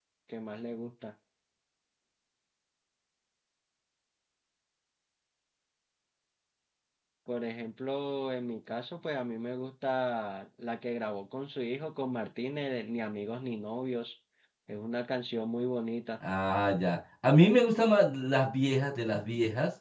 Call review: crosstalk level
none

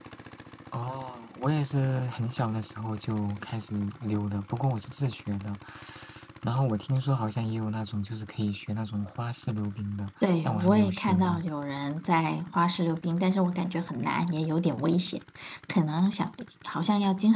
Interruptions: present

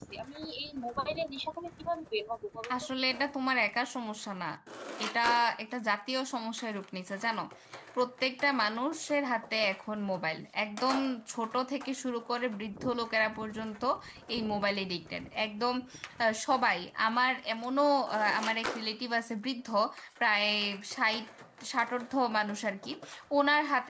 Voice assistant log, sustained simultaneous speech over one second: none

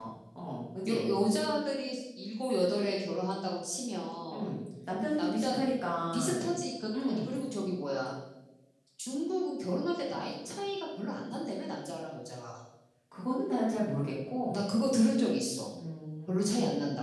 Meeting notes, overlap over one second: none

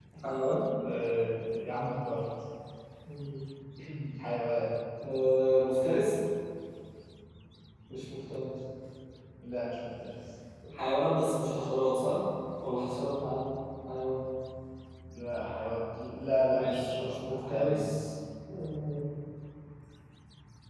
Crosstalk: present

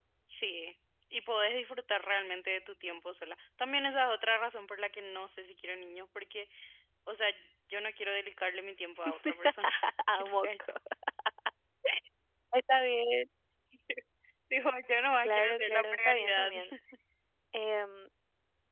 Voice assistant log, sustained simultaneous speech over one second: present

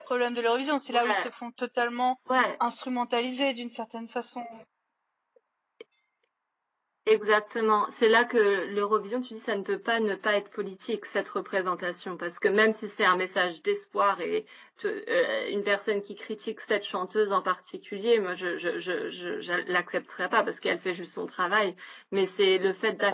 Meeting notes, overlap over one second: none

